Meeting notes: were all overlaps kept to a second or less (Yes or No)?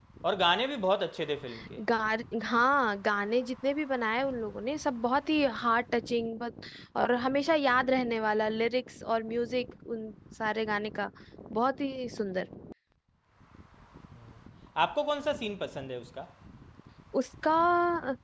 Yes